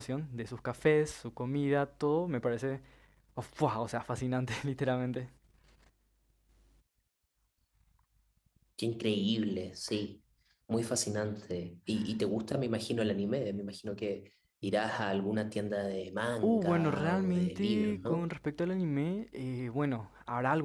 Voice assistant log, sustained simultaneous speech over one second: present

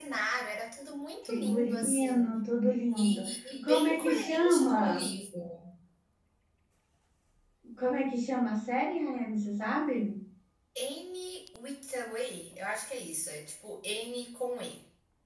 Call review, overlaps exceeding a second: present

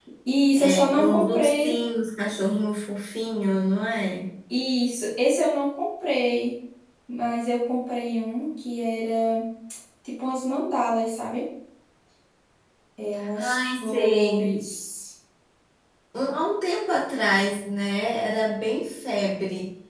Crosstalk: present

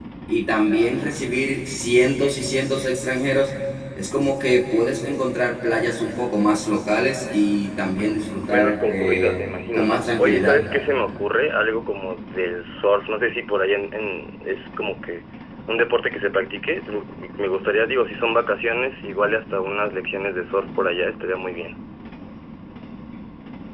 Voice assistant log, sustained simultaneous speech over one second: present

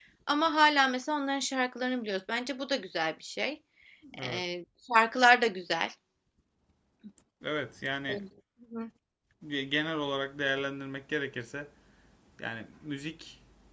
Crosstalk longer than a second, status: none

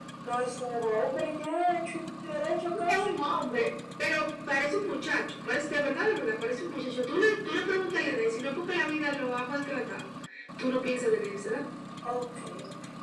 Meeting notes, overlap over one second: none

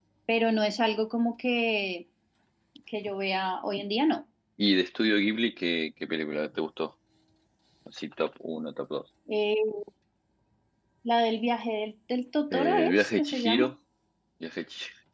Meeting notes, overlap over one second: present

